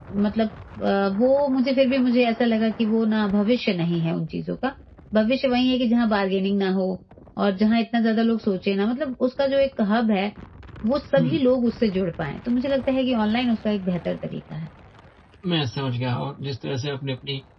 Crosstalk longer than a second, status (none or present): none